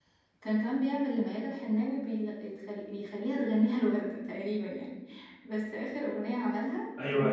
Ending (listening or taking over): taking over